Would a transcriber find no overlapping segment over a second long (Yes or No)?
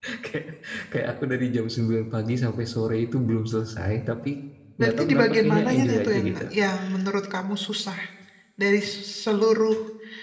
No